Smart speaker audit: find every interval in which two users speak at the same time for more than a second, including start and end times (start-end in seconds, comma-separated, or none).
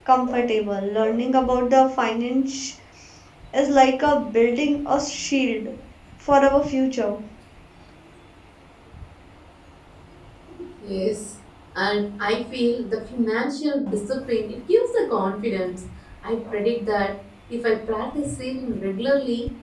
none